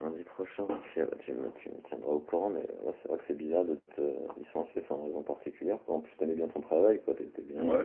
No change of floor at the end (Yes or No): No